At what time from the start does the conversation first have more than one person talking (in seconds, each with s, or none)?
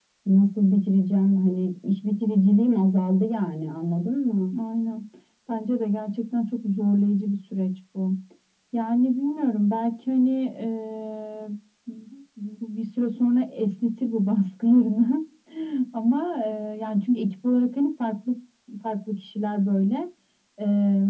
none